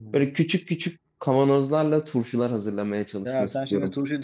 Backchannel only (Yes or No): No